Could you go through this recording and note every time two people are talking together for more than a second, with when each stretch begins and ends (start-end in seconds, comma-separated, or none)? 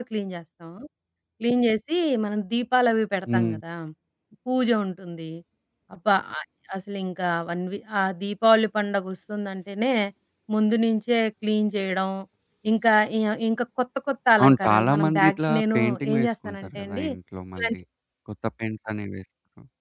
14.4-17.0